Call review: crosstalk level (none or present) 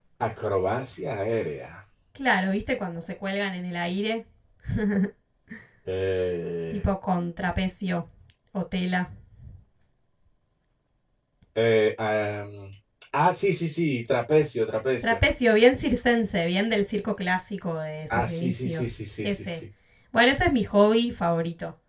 present